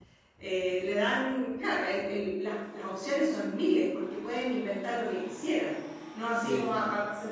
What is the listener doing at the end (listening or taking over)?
listening